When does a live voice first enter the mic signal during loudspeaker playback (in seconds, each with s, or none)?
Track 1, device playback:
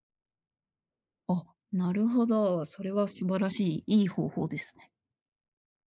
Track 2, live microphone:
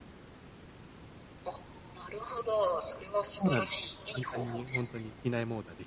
3.4 s